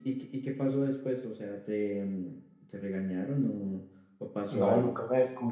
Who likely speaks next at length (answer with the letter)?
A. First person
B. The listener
B